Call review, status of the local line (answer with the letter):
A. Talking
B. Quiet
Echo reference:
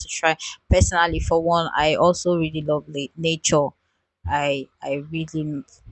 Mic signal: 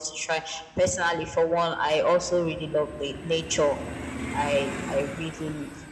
B